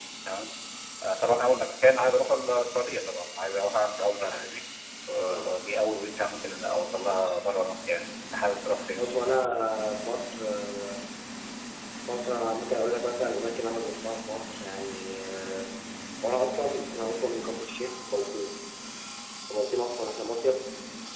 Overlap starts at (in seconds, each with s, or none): none